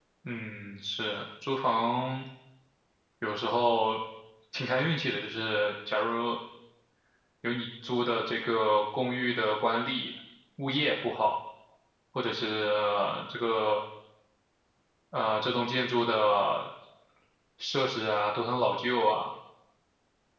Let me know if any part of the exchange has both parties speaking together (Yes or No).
No